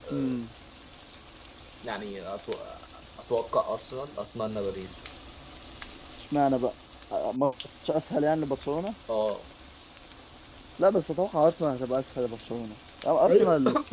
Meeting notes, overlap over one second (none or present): none